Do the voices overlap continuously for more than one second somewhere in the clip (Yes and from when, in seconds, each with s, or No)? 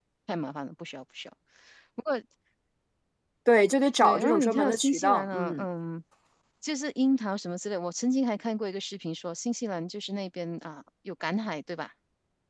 Yes, from 4.0 s